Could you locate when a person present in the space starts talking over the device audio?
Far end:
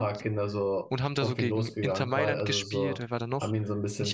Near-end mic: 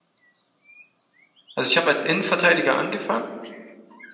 2 s

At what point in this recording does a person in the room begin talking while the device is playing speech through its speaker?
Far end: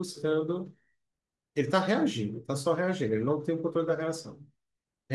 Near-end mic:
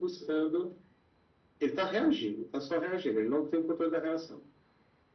none

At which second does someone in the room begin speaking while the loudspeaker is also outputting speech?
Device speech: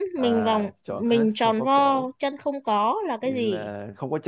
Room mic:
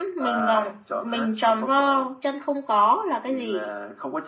none

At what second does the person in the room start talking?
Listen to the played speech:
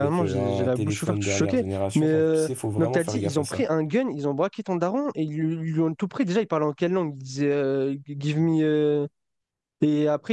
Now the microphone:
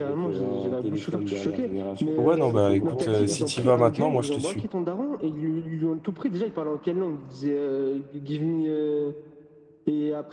2 s

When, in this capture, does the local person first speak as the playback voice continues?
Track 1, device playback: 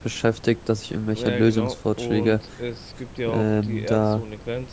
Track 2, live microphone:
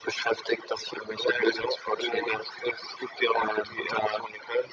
none

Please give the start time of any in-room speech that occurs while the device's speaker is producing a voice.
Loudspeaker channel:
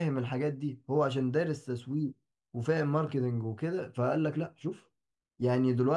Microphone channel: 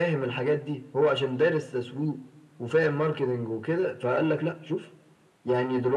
none

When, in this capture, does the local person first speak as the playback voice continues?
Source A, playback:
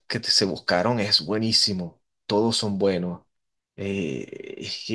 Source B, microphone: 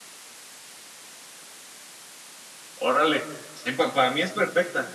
3 s

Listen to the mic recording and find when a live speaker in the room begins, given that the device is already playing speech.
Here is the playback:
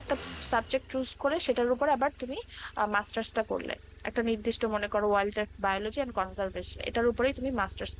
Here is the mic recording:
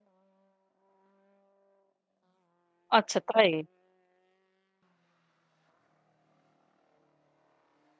3 s

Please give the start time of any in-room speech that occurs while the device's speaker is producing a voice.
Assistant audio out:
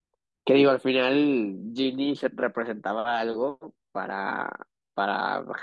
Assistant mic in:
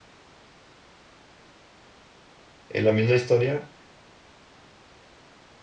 3 s

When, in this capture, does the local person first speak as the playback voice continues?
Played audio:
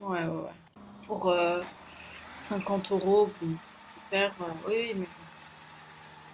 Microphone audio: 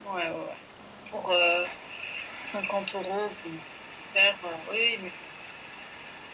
none

